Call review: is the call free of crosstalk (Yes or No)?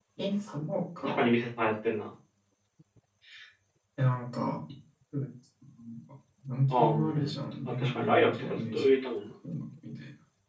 No